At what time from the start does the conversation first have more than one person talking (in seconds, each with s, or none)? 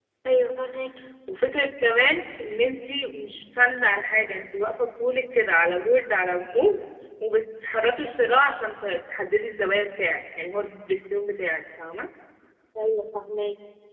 none